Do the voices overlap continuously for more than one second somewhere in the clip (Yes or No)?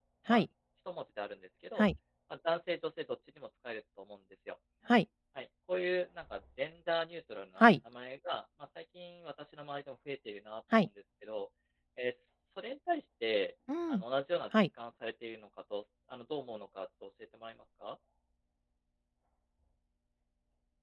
No